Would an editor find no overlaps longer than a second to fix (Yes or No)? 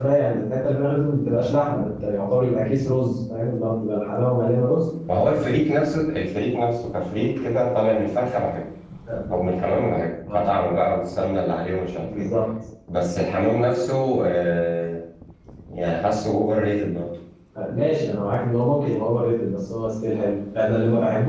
Yes